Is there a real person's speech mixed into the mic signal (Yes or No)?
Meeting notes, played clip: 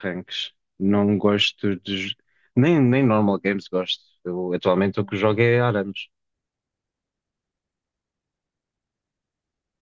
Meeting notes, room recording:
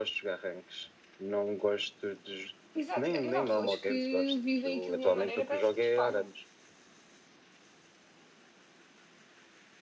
Yes